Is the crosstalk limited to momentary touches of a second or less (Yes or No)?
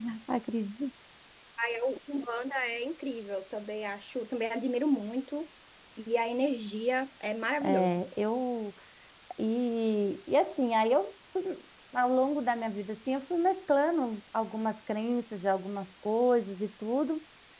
Yes